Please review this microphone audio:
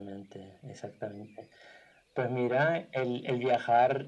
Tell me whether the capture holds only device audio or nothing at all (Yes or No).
Yes